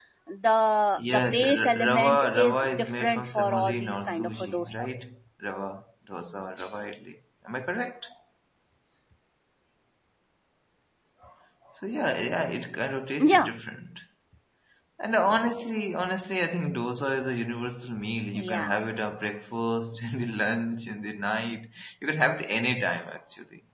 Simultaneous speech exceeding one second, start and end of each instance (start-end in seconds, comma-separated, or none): 1.1-4.7